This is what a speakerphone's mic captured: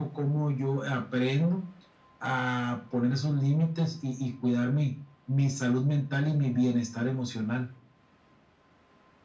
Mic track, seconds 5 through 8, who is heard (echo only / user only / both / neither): echo only